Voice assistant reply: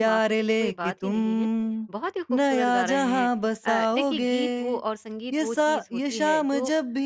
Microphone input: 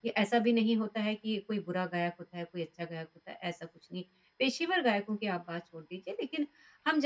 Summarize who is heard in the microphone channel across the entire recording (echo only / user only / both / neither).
user only